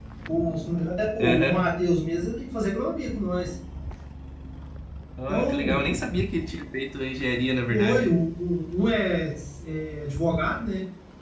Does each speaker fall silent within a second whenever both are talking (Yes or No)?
Yes